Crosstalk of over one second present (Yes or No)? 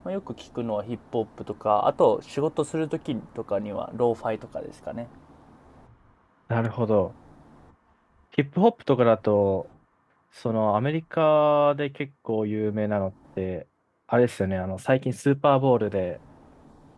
No